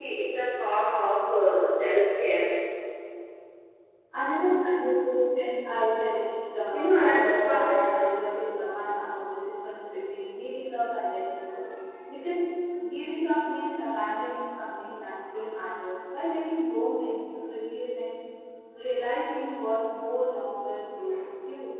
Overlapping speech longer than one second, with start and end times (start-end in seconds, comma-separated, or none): 6.7-8.2